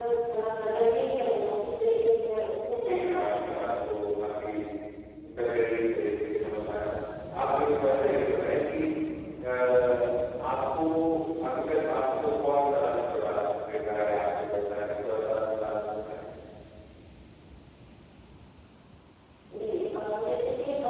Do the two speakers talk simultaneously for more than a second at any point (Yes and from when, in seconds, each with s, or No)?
Yes, from 2.7 s